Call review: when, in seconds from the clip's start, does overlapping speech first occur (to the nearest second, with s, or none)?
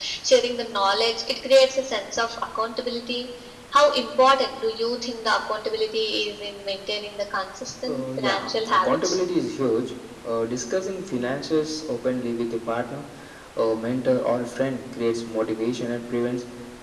8 s